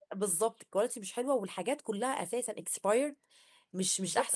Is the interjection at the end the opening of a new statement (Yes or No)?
Yes